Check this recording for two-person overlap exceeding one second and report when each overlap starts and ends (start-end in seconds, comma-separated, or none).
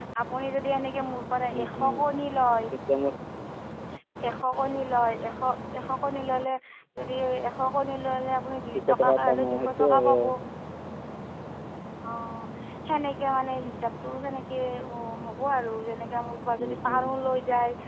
8.9-10.2